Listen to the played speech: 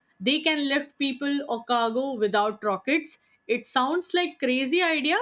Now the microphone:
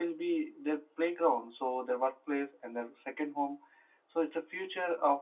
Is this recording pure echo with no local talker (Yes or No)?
No